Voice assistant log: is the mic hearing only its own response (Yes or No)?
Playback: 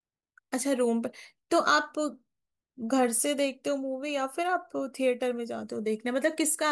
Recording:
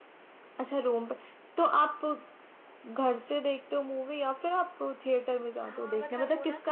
No